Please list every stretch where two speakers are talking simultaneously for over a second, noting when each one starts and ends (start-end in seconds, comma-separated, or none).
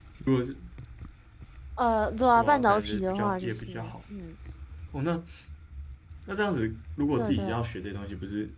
2.4-3.9